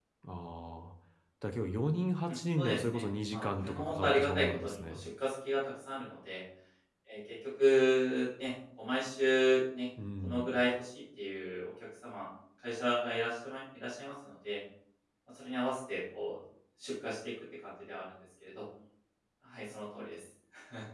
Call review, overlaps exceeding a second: present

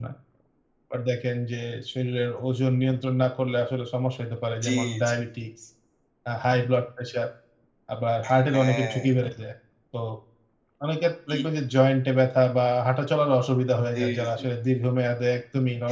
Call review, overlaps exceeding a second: none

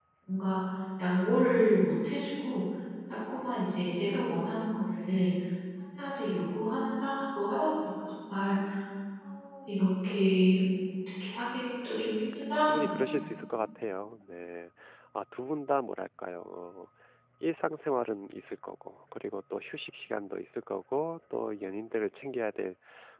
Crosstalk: present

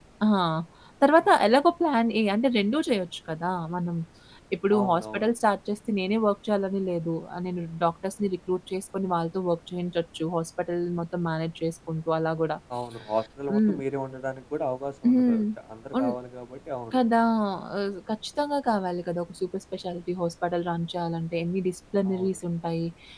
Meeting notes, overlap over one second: none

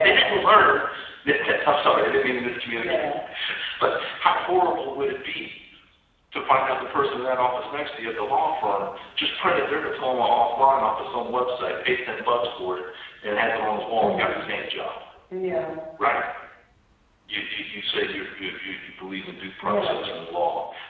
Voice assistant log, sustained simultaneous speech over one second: none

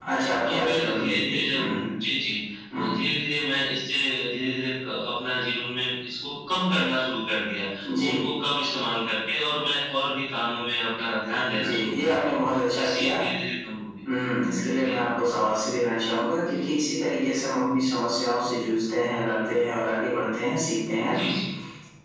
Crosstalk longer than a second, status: present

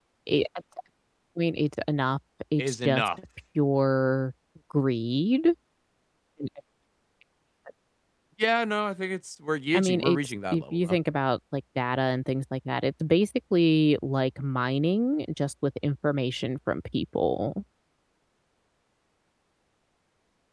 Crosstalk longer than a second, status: present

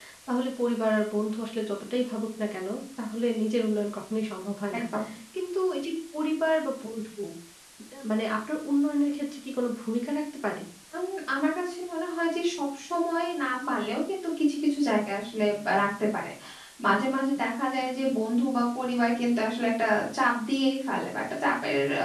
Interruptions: none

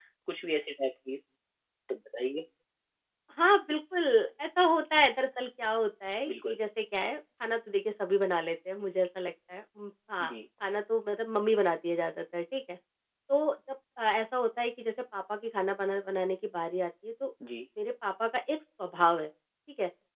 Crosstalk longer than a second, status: none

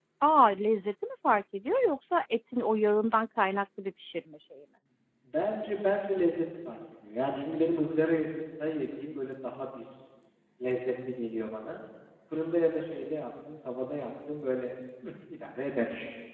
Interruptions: none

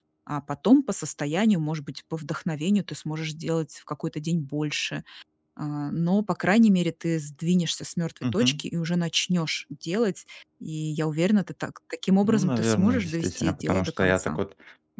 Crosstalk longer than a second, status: present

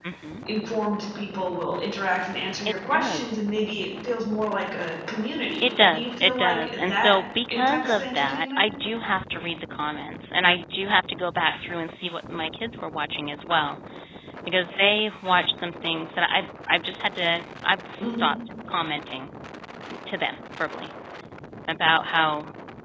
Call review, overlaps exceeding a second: present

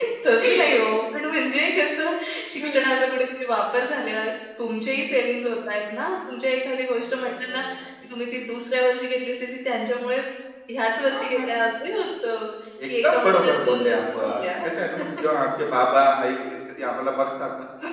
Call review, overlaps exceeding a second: present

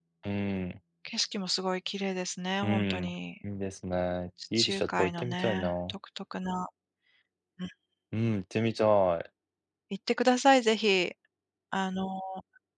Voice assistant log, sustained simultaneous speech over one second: present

